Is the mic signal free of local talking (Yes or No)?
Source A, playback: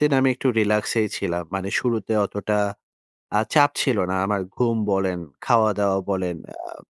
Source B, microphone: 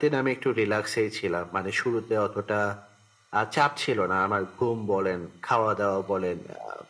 Yes